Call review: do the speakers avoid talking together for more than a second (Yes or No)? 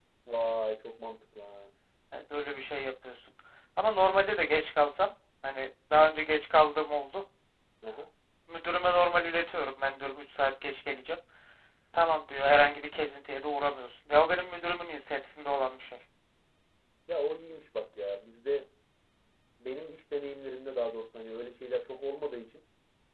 Yes